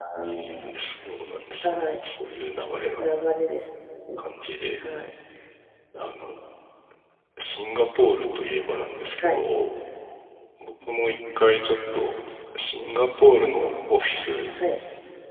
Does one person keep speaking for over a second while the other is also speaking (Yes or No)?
No